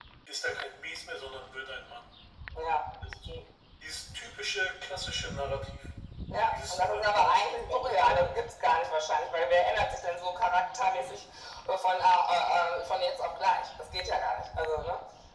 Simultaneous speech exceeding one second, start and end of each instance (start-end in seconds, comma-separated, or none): 6.5-8.4